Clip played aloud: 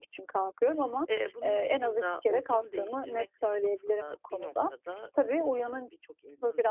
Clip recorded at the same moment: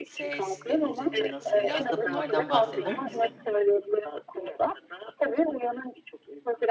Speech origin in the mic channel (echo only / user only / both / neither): both